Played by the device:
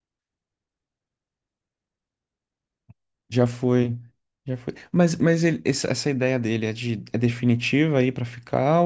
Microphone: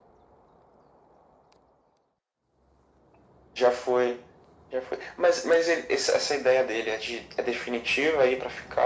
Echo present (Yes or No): Yes